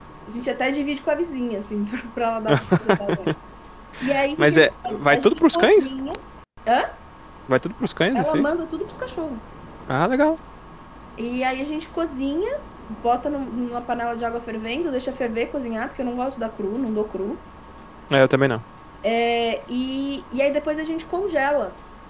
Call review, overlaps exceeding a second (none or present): present